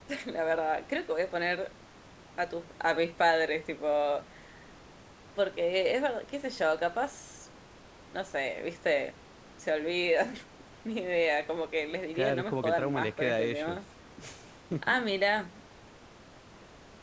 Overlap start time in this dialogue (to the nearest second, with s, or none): 12 s